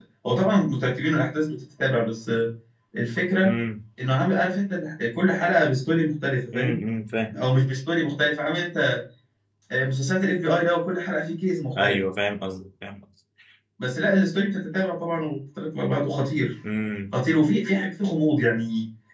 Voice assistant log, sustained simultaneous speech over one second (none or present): none